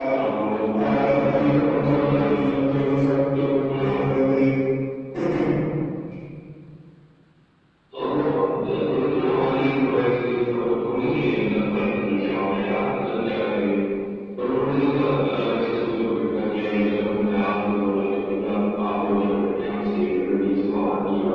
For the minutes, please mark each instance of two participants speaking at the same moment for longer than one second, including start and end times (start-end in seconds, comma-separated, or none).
0.8-2.1